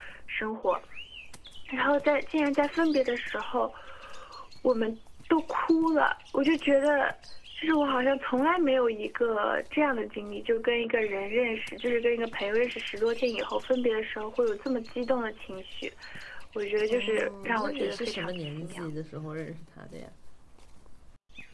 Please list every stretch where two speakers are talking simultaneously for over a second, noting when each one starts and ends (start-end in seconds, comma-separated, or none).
16.9-18.9